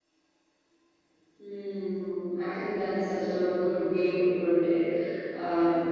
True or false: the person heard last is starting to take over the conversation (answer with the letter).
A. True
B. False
B